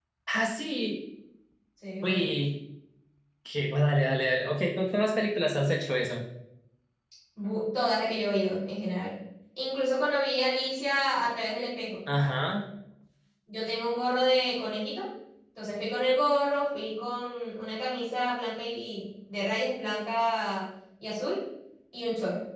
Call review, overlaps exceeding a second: none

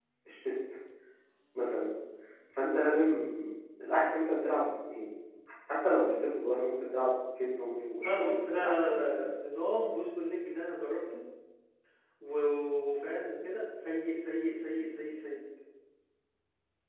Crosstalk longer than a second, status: present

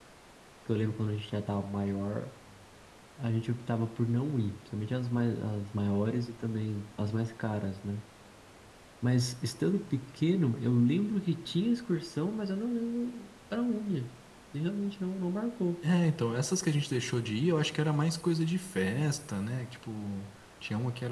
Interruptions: none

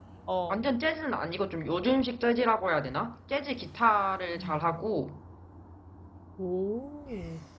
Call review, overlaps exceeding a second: none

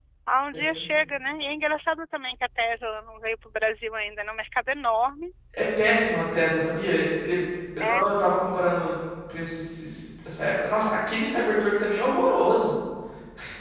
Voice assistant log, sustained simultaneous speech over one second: none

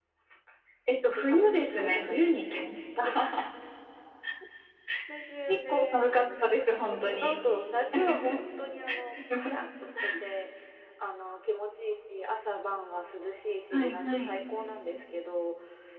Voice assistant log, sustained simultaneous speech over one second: present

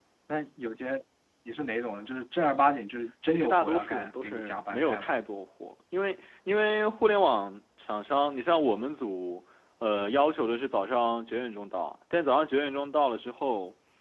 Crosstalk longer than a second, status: present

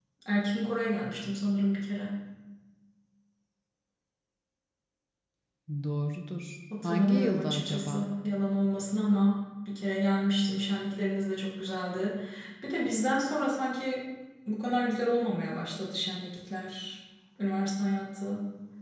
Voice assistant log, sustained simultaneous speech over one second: present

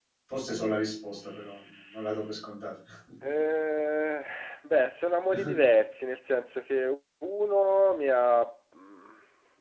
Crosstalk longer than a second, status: none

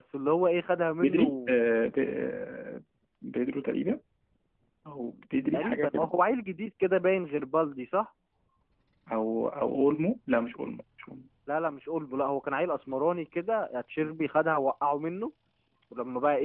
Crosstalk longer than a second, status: none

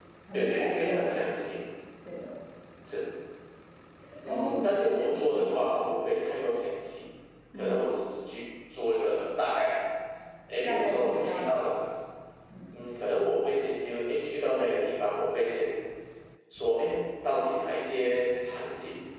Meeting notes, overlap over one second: present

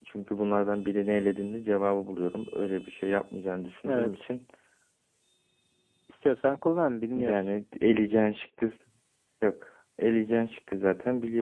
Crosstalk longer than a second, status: none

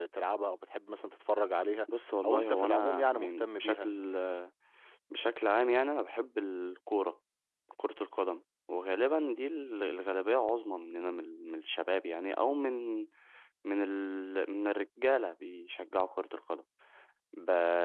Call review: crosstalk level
present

